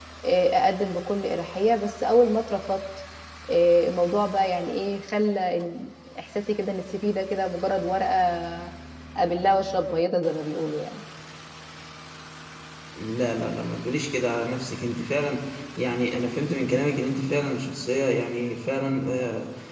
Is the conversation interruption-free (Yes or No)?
Yes